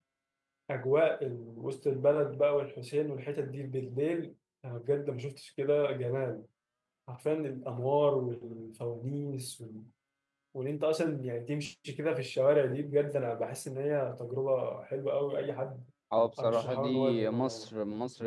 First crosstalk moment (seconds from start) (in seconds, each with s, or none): 16.4 s